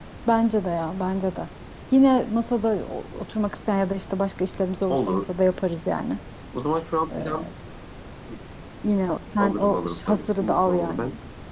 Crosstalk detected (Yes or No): Yes